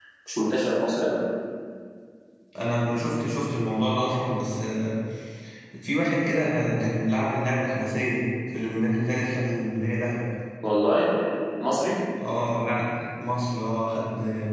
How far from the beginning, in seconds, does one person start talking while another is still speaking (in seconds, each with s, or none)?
none